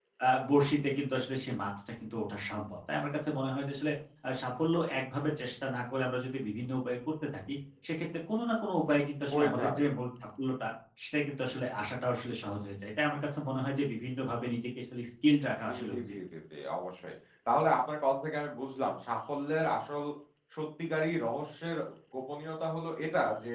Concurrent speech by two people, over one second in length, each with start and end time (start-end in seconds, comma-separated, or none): none